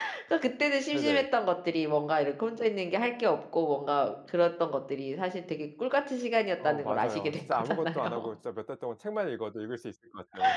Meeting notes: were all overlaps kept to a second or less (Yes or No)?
No